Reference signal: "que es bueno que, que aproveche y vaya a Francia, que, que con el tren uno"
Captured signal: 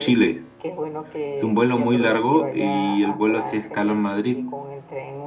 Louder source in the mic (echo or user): user